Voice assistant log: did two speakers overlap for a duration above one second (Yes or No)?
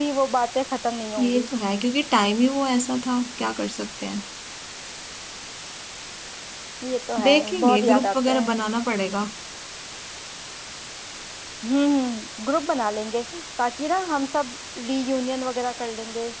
Yes